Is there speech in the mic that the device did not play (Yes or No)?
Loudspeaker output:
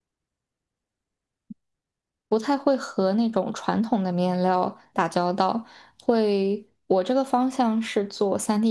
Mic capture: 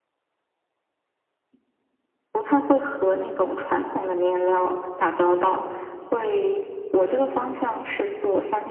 No